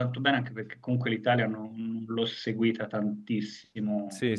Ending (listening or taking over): taking over